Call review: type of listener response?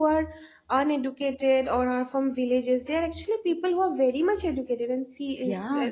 listening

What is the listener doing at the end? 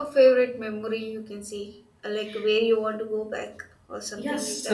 taking over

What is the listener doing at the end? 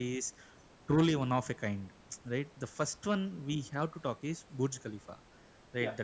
listening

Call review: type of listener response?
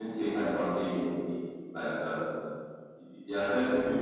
listening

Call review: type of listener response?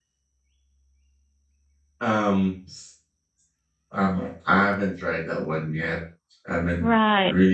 listening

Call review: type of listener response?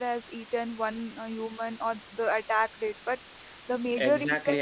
taking over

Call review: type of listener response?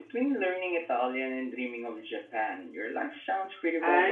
taking over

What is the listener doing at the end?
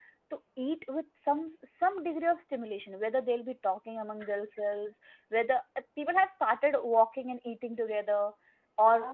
listening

